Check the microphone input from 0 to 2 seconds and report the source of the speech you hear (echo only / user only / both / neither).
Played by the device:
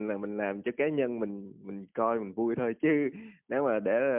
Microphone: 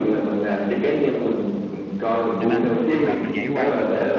echo only